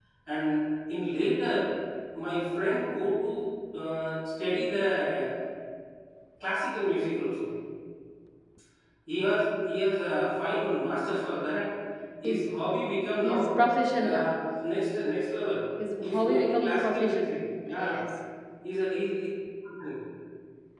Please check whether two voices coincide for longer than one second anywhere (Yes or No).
Yes